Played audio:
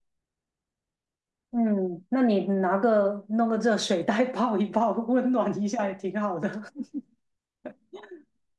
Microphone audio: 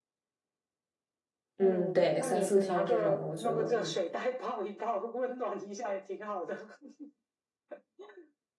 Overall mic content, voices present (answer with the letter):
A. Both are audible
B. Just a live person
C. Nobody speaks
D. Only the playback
A